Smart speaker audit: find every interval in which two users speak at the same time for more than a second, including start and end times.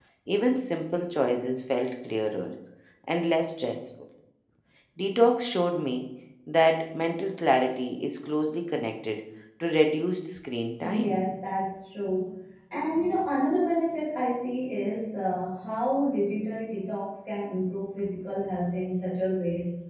none

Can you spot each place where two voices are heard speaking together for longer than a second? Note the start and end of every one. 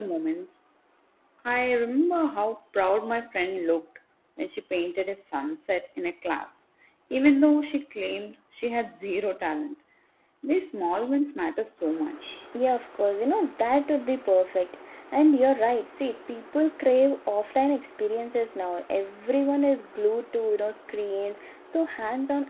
none

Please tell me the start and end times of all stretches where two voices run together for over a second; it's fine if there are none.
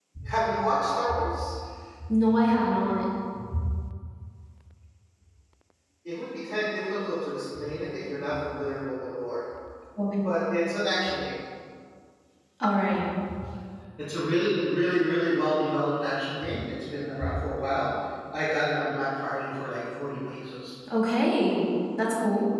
none

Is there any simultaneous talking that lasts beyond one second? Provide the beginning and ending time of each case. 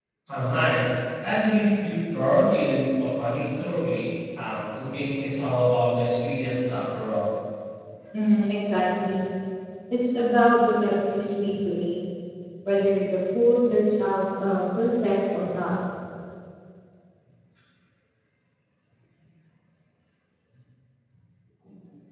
none

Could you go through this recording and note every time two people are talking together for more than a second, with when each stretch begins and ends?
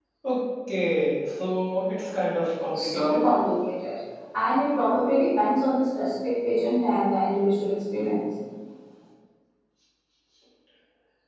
none

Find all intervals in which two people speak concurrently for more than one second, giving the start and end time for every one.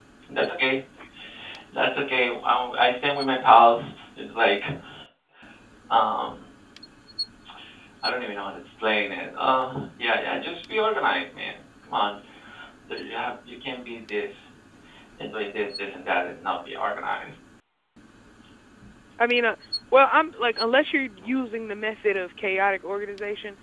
none

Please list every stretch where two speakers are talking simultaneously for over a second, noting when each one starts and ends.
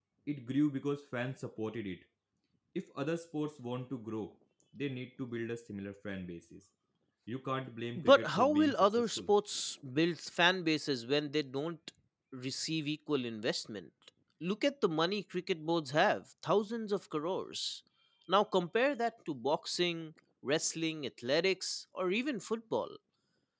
8.0-9.3

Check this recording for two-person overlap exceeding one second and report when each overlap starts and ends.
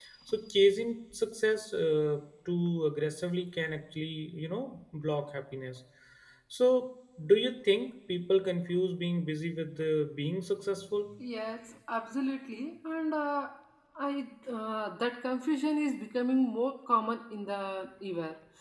none

